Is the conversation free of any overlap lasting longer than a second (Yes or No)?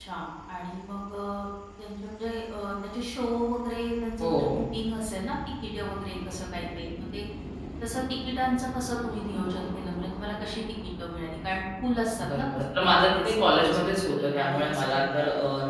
No